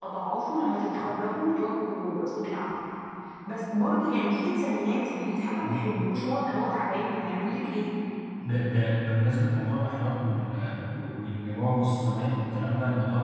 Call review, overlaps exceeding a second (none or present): none